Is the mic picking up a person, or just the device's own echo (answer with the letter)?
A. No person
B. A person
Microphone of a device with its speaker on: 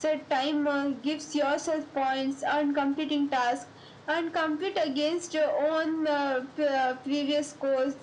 A